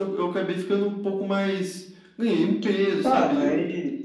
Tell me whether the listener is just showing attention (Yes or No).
No